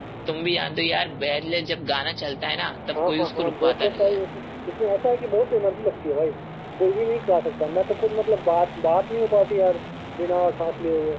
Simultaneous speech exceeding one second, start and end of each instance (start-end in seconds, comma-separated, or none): 2.9-4.2